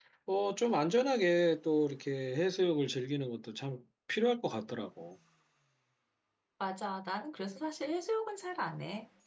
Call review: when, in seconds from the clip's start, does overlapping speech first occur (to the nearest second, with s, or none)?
none